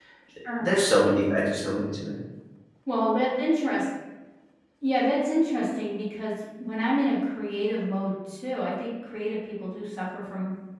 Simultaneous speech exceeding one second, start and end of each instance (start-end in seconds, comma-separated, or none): none